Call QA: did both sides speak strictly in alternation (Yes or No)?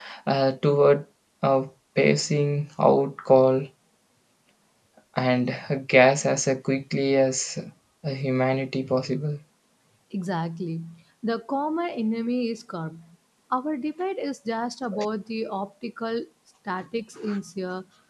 Yes